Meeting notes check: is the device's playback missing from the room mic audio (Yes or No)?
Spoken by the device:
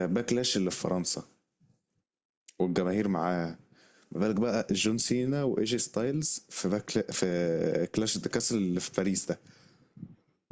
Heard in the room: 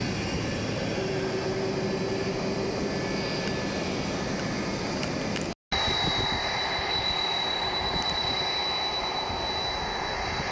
Yes